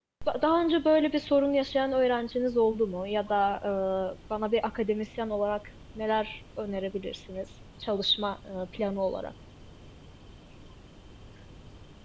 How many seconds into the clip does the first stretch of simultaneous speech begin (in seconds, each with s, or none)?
none